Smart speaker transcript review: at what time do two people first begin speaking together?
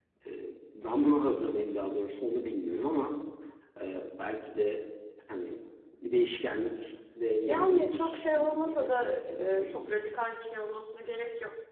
7 s

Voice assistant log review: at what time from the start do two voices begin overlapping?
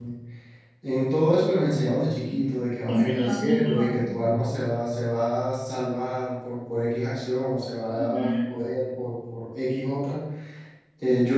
3 s

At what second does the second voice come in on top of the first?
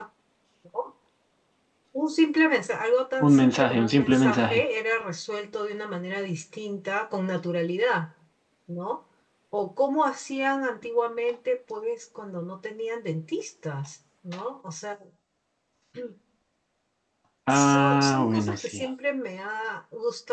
3 s

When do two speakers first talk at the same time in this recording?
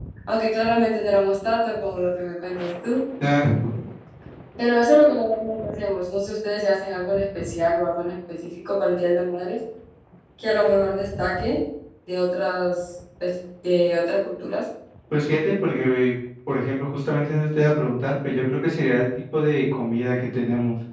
none

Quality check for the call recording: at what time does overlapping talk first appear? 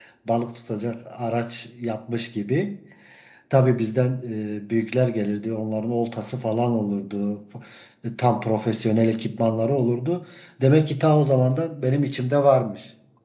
none

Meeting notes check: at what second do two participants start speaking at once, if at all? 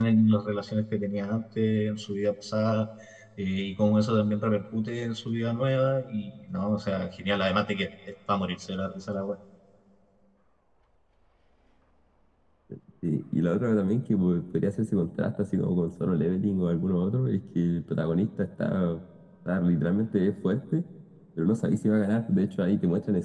none

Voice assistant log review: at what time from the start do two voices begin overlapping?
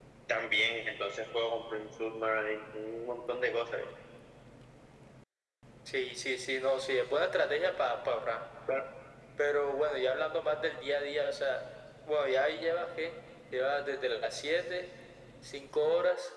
none

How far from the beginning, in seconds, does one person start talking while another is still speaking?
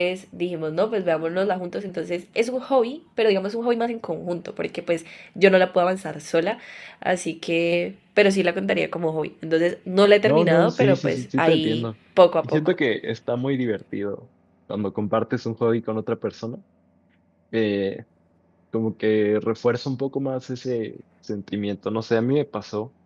10 s

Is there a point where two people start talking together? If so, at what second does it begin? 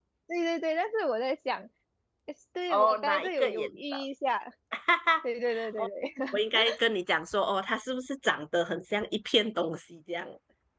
3 s

